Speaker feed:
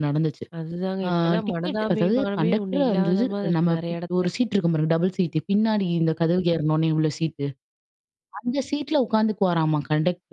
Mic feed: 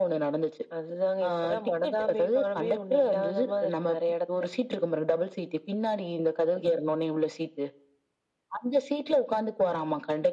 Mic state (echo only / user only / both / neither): echo only